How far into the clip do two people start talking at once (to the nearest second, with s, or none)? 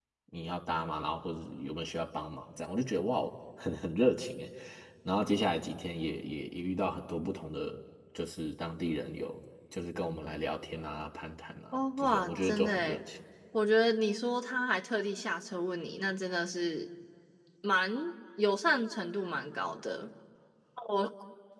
12 s